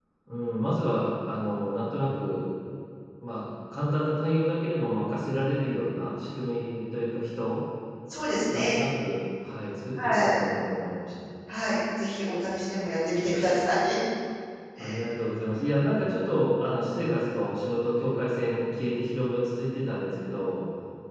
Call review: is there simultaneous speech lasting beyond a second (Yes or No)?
No